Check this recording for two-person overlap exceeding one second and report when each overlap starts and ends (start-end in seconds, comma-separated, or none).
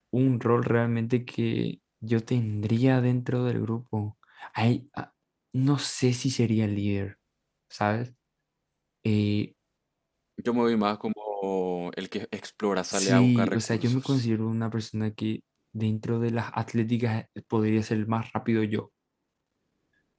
12.9-14.2